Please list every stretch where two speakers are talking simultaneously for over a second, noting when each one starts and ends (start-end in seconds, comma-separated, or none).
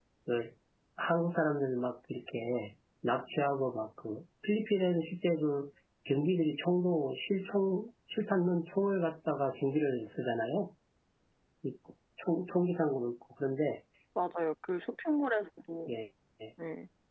none